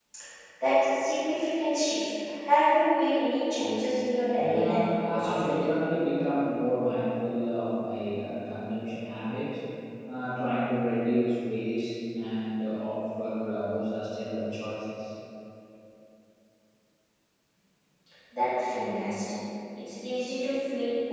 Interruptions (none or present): present